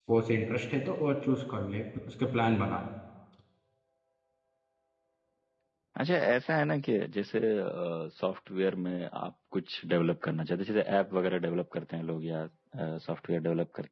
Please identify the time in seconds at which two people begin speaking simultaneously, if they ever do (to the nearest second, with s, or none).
none